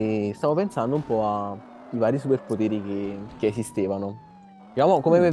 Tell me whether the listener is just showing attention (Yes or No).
Yes